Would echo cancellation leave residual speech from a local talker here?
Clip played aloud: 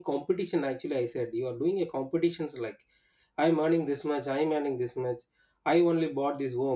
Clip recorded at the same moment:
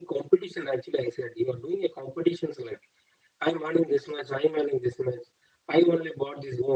No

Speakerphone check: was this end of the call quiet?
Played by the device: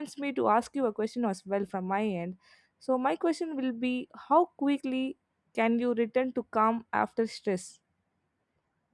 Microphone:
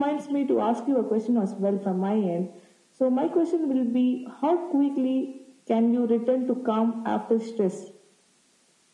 Yes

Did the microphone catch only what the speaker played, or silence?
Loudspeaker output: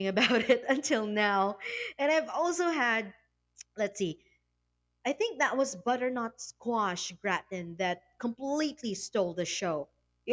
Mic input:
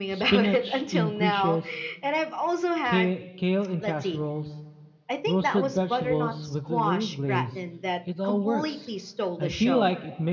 No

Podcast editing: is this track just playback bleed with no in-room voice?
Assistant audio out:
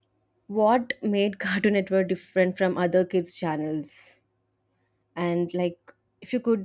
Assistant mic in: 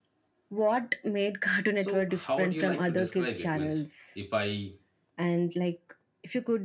No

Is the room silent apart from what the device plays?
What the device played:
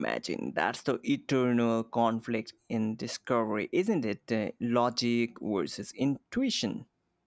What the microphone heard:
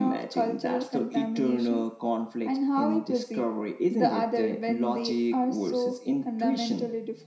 No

